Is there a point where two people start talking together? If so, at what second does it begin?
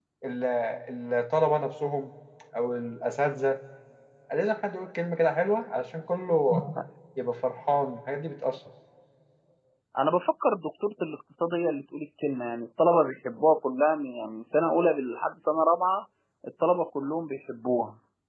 none

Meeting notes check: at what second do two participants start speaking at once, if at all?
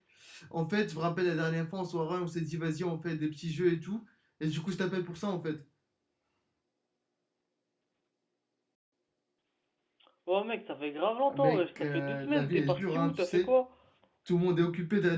11.3 s

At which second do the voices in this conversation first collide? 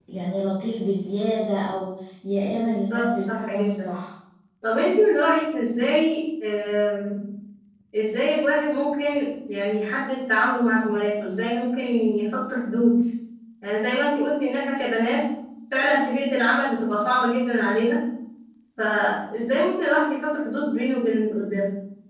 2.6 s

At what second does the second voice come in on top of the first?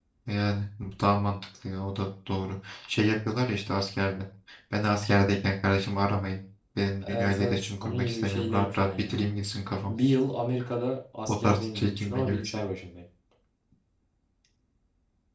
7.1 s

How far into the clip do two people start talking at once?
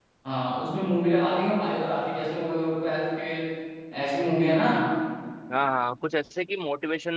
none

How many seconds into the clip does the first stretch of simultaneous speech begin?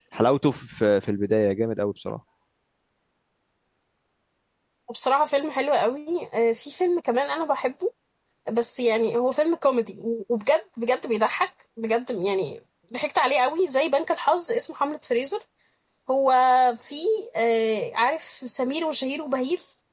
none

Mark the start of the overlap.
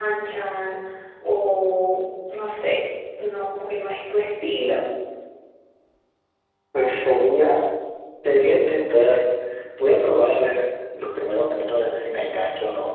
none

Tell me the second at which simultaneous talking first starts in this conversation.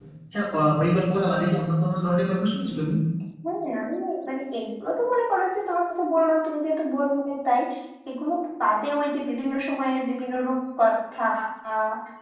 none

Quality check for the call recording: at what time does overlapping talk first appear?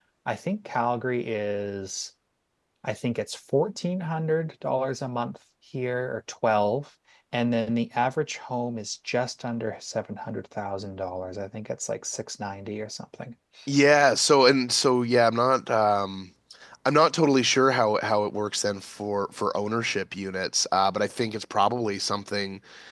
none

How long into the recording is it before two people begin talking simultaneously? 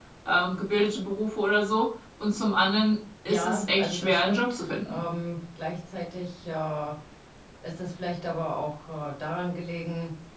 3.3 s

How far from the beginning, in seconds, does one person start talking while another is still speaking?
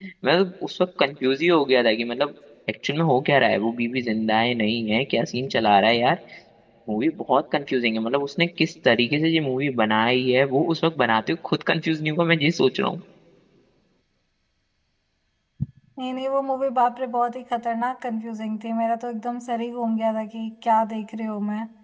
none

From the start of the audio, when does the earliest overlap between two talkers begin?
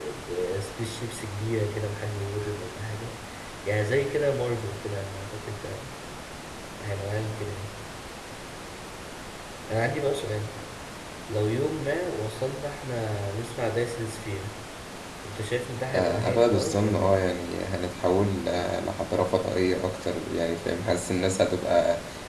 15.9 s

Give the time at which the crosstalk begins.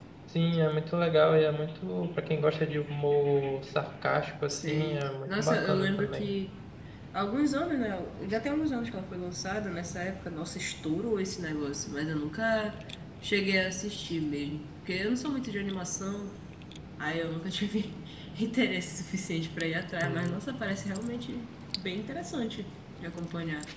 4.5 s

